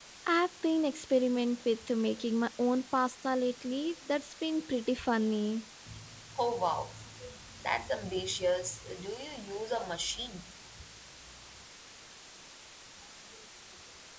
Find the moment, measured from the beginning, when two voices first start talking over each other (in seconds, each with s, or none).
none